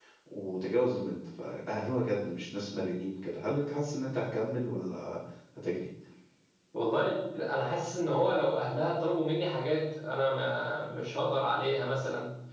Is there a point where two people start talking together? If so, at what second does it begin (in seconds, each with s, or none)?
none